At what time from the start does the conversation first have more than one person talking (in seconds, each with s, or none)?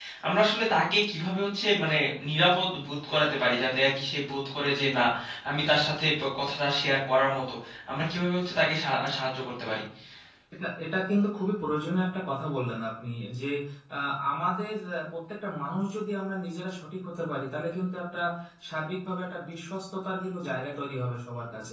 none